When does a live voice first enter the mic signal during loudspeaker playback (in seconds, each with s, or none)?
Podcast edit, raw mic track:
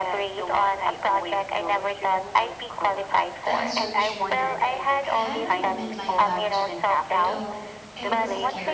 3.4 s